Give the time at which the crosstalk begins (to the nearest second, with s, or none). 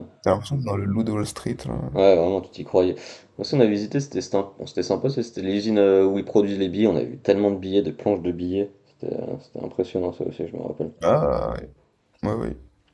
none